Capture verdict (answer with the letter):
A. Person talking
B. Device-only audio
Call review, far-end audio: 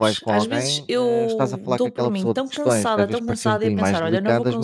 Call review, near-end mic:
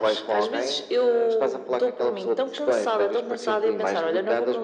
B